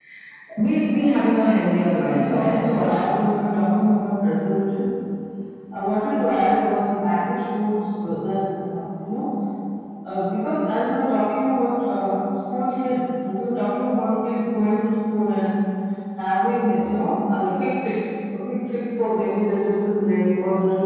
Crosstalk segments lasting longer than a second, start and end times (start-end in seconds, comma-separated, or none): 2.0-3.2